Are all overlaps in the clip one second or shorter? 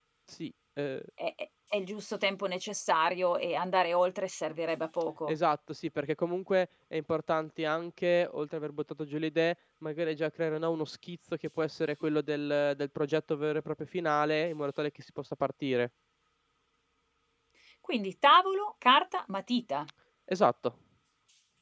Yes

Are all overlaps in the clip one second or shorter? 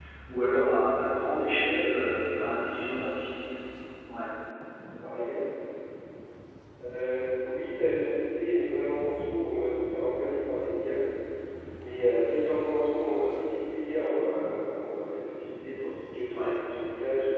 Yes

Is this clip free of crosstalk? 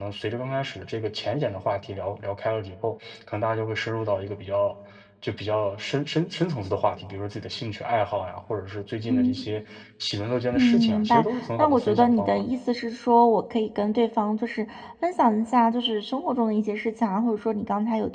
No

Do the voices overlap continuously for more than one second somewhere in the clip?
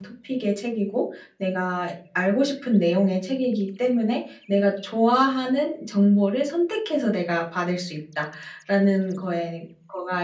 No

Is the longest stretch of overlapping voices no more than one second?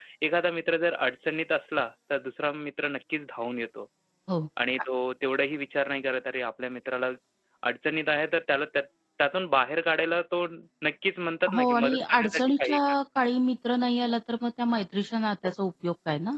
No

